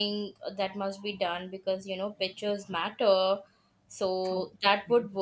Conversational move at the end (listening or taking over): listening